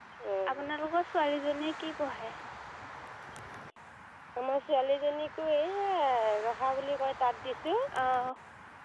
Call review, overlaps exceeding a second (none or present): none